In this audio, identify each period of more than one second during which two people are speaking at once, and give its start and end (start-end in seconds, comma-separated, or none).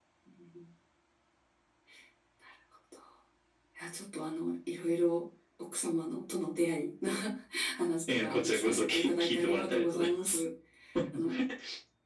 8.1-10.4